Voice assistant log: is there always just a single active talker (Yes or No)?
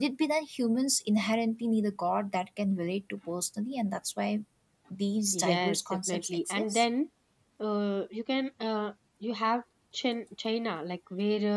No